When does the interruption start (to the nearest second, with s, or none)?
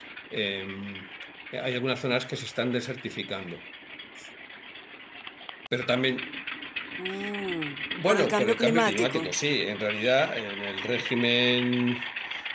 8 s